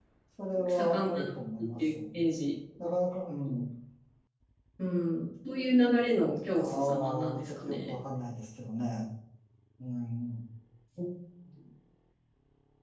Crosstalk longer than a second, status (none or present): present